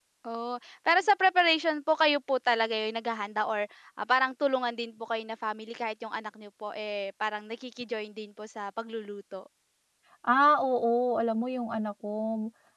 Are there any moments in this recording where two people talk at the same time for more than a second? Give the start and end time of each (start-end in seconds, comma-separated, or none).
none